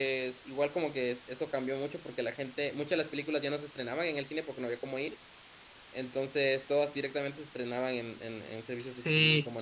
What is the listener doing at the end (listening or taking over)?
taking over